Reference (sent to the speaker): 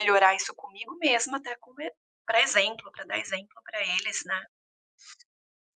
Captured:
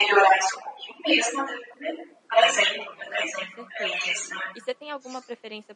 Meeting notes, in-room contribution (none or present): present